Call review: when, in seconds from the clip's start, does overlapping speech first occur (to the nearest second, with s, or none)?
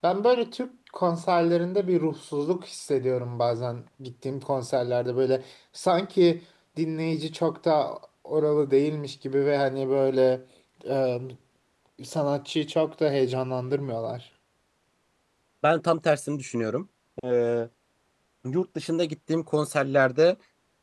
none